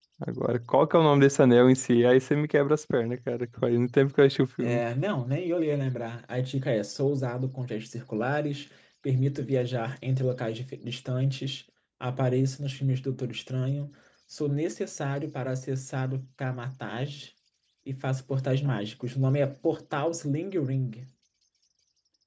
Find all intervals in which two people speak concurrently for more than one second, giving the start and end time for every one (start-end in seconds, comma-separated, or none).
none